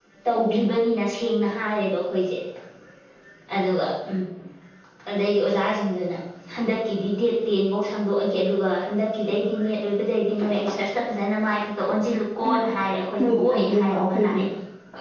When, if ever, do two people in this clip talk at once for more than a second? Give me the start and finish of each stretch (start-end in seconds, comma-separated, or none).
13.2-14.4